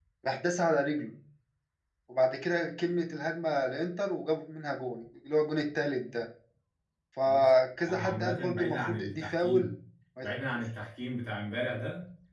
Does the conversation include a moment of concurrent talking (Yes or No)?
Yes